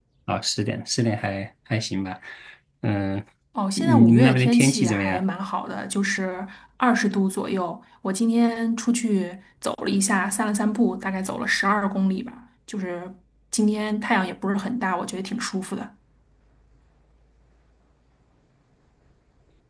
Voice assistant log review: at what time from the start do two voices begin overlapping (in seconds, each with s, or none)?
3.8 s